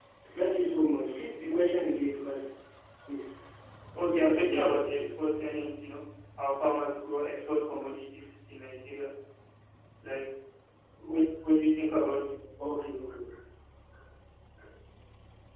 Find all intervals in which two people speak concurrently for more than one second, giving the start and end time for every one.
4.0-5.2

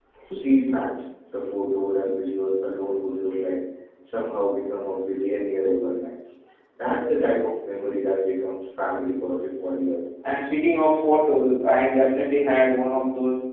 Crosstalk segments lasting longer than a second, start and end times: none

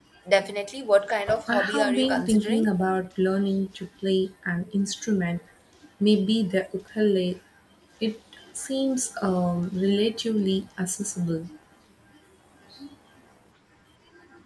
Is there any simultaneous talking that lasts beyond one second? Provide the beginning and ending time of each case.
1.5-2.7

